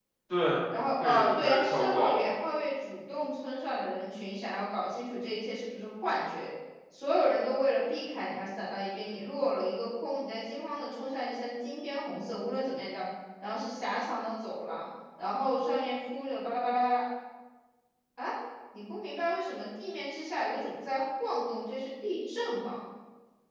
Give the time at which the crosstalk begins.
1.0 s

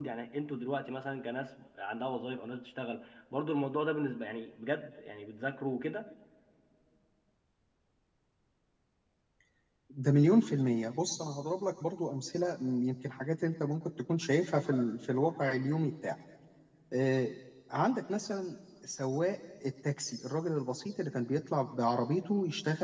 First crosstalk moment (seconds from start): none

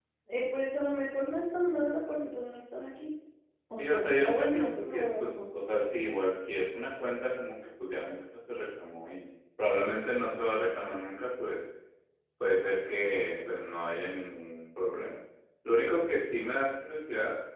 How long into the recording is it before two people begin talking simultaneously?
3.8 s

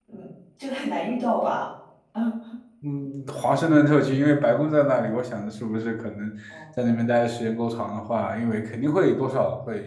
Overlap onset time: none

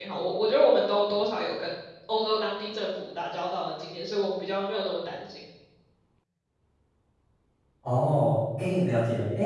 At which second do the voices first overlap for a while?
none

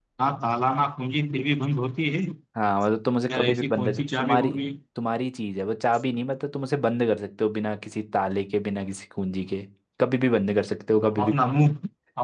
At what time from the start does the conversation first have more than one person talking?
3.3 s

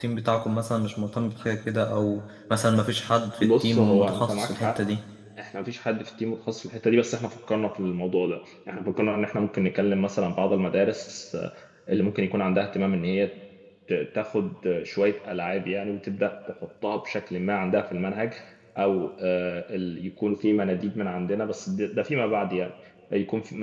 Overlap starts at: 3.4 s

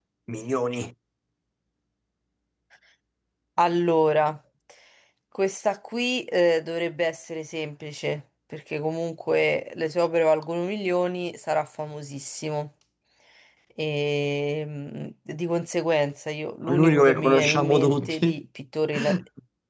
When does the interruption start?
16.7 s

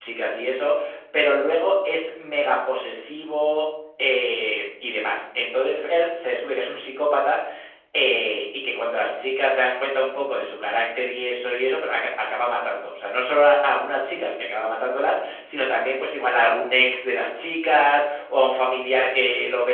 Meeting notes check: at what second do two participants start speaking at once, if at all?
none

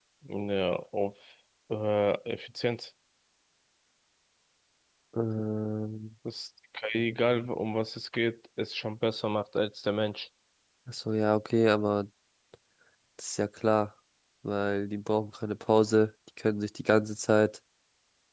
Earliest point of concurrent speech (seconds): none

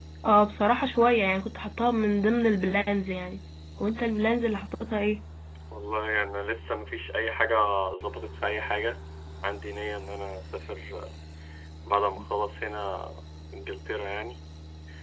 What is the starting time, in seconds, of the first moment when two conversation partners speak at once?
none

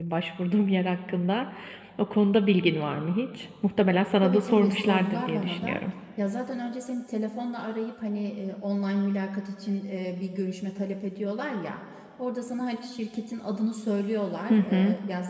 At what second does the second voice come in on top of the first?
4.2 s

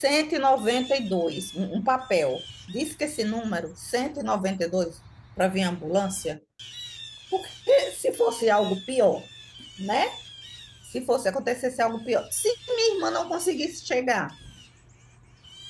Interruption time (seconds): none

